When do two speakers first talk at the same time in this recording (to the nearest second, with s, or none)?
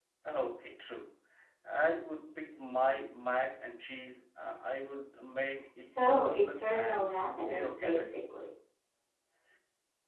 6 s